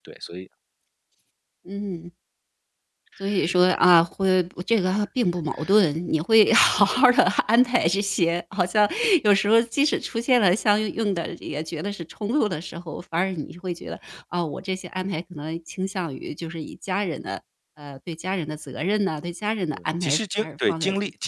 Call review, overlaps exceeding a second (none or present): present